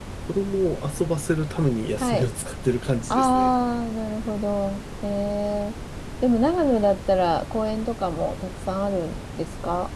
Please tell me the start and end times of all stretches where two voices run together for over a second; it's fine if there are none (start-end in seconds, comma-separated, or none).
none